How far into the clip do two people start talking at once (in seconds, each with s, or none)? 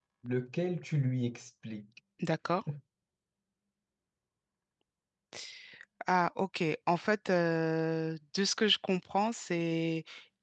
none